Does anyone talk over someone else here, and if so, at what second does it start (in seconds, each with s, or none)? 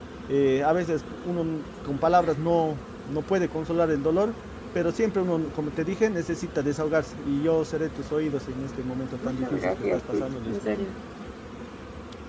9.2 s